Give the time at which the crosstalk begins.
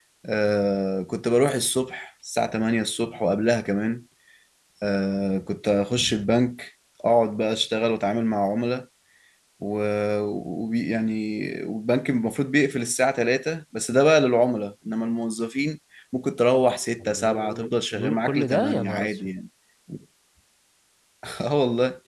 17 s

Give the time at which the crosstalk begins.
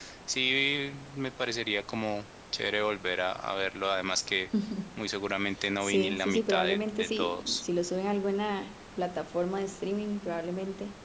6 s

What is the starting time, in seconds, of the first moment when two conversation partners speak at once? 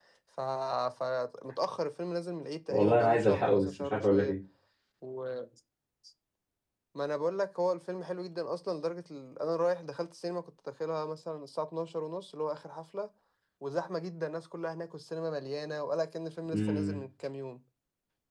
3 s

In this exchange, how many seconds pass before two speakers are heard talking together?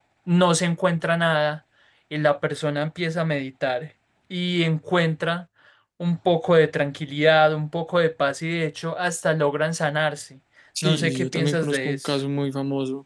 11 s

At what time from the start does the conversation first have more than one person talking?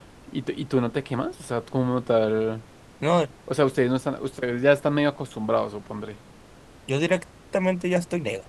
none

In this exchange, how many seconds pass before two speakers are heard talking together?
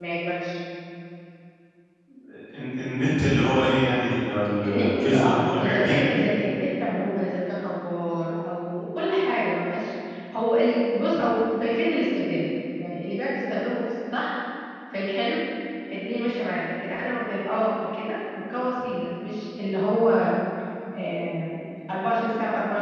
5 s

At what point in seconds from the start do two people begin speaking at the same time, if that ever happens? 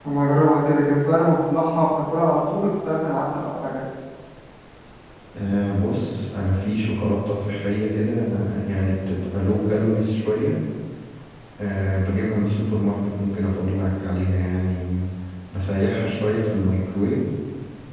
none

